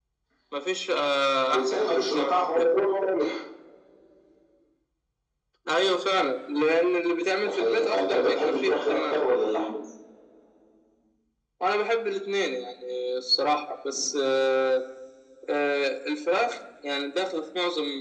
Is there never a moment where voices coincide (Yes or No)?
No